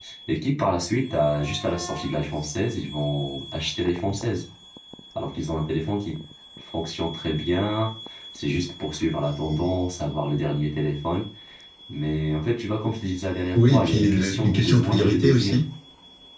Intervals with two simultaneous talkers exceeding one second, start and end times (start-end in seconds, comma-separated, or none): 13.5-15.6